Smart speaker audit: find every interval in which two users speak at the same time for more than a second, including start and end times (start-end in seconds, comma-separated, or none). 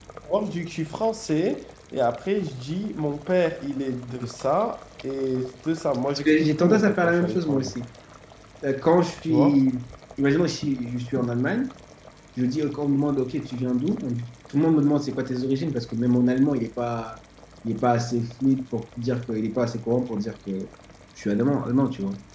6.2-7.7